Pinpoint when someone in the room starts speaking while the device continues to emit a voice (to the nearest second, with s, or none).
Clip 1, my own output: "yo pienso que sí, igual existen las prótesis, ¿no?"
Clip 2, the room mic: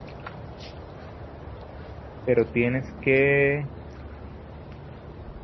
2 s